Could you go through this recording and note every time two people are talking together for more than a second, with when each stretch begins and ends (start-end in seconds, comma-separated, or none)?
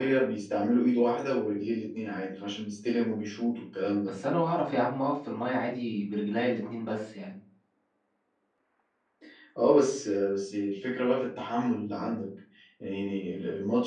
none